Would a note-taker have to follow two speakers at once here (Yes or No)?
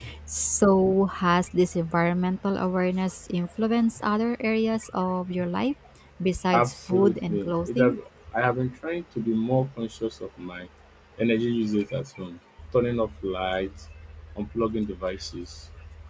Yes